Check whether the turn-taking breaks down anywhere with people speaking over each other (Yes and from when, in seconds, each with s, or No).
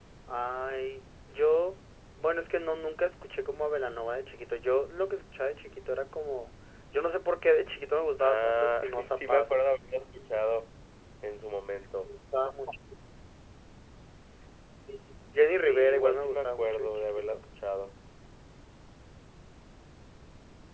Yes, from 8.2 s